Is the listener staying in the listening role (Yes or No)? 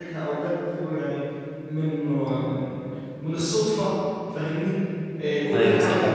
Yes